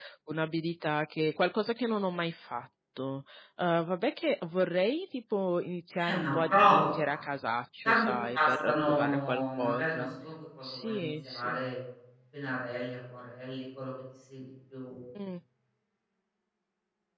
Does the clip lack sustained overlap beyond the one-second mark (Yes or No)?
No